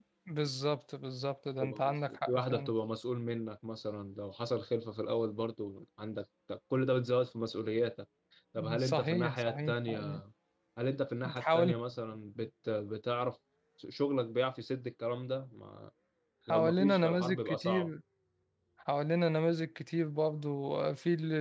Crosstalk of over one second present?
Yes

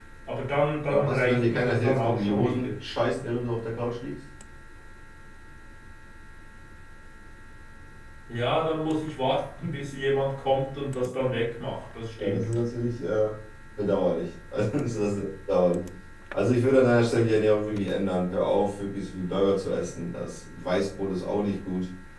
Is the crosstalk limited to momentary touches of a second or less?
No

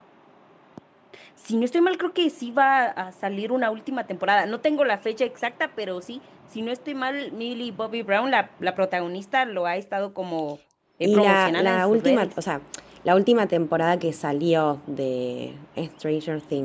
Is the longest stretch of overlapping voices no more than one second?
No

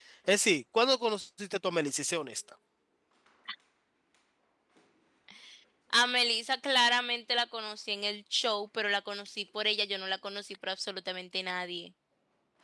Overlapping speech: No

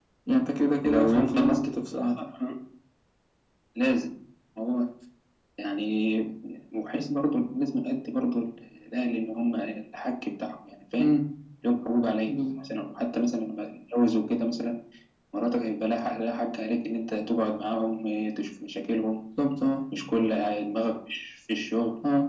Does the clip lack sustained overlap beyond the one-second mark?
No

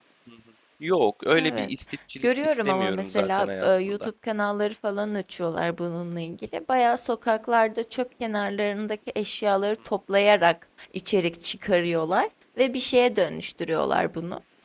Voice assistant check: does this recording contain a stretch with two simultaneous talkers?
Yes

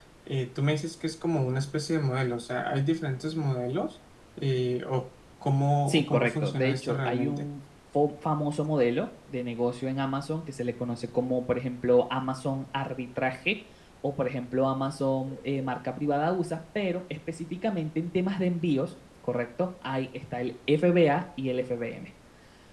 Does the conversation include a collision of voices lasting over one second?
Yes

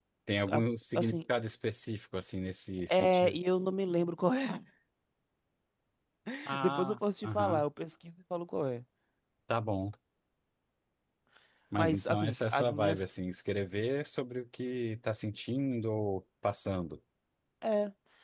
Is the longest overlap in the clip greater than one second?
Yes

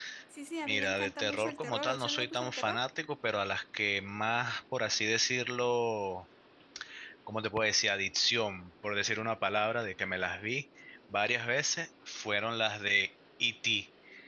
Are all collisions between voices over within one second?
No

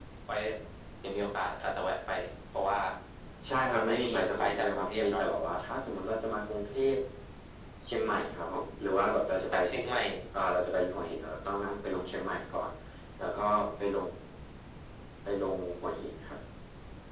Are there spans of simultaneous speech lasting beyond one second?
Yes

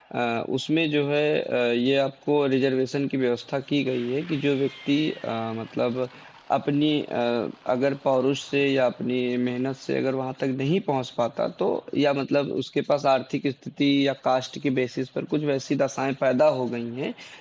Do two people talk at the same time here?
No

